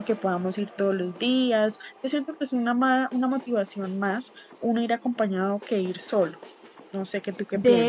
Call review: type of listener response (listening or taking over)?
taking over